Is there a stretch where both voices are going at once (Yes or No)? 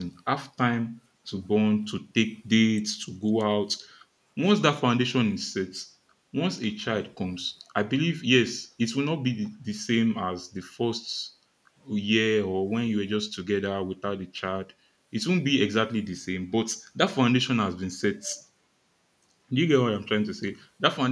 No